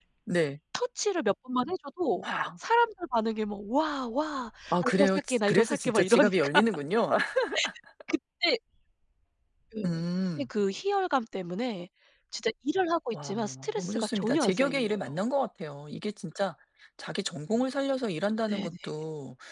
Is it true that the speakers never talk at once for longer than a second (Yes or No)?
No